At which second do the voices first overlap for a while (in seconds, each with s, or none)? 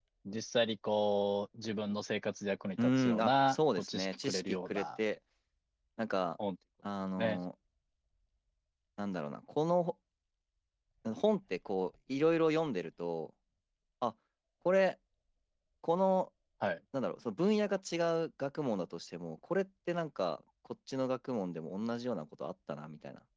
2.8 s